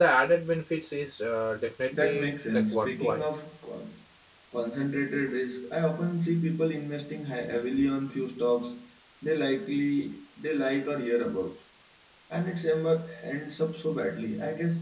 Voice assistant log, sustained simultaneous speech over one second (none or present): present